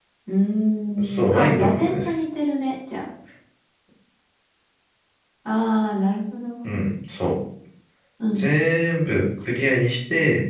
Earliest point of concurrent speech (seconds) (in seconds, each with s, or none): 1.0 s